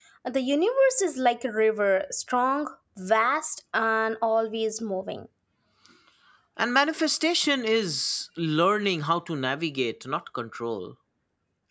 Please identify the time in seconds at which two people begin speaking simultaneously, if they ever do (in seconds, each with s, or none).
none